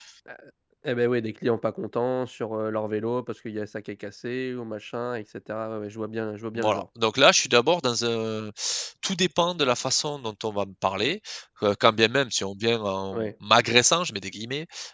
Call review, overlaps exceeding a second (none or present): none